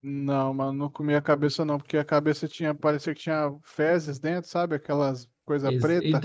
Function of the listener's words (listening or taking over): taking over